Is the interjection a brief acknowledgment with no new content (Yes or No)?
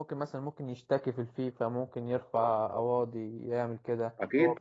No